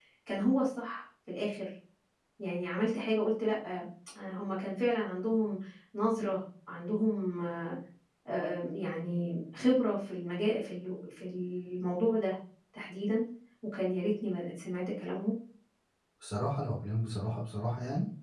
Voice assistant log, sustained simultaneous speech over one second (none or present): none